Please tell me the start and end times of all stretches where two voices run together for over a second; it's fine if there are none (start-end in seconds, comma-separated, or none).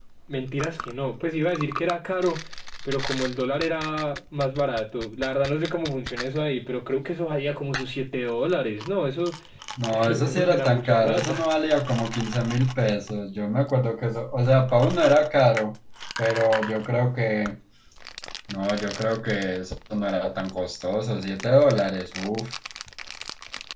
9.9-11.4